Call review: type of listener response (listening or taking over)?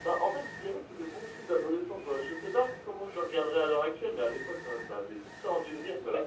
taking over